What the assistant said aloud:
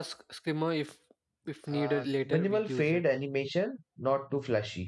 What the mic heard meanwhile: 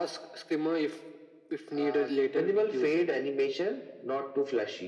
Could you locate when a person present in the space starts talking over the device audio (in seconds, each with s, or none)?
none